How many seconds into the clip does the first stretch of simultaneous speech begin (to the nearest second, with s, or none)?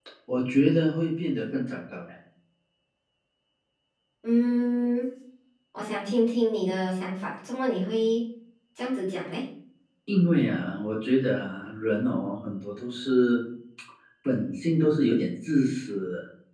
none